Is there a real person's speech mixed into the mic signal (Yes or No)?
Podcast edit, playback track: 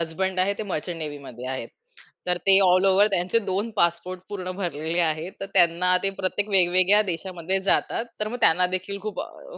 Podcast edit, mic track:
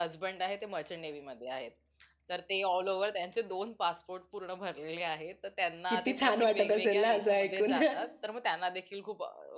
Yes